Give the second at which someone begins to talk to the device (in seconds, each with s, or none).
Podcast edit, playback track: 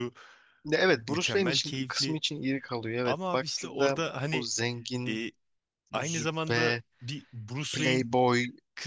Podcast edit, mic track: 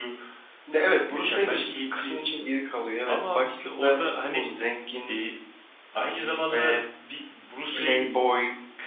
none